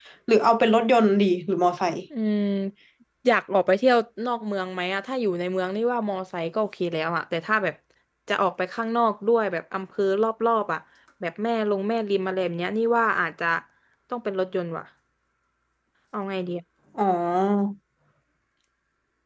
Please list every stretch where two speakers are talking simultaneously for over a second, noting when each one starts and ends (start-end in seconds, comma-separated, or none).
none